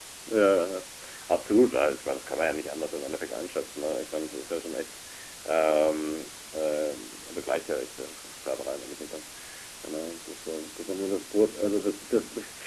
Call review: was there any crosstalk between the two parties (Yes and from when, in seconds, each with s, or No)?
No